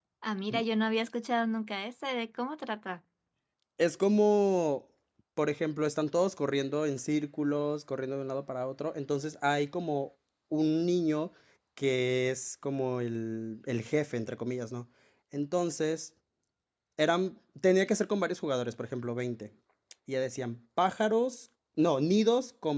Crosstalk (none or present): none